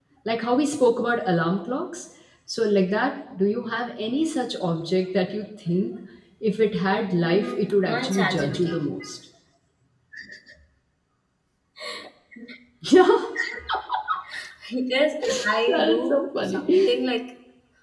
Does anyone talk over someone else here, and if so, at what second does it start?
7 s

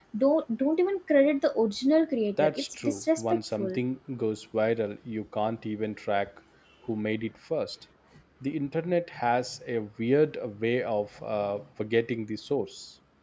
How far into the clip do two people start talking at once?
2 s

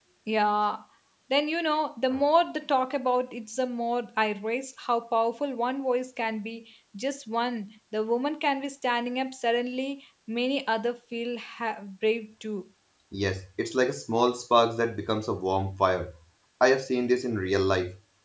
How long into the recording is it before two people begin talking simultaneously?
none

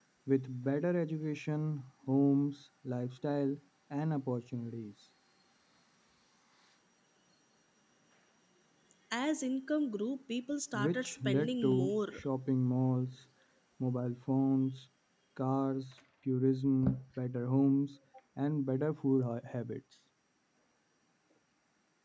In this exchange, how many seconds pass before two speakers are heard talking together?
11 s

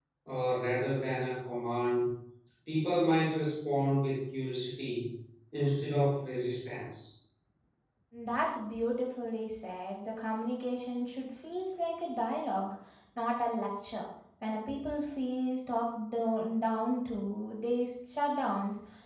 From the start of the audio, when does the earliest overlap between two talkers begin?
none

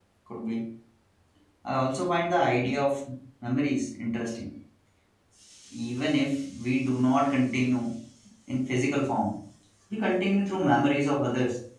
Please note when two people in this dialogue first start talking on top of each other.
none

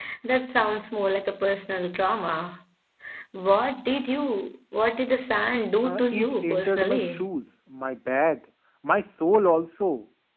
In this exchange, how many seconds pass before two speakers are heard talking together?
6 s

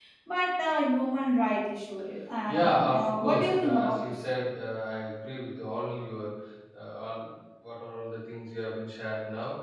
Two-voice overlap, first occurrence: 2 s

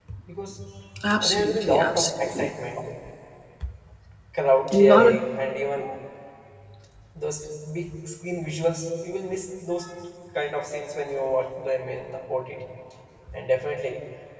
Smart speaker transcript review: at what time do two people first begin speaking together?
1 s

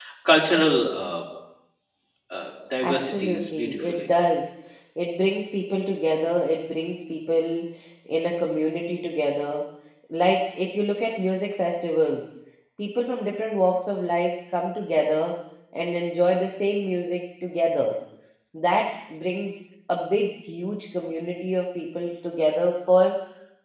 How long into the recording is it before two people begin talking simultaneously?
3 s

